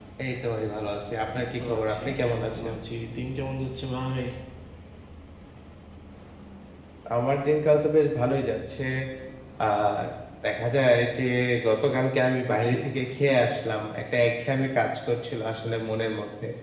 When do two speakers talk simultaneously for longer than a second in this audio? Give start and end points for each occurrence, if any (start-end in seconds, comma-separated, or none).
1.4-2.7